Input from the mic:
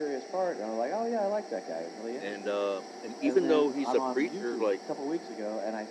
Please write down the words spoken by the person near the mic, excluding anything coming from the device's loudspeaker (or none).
And, uh, and even though he's a preacher, like,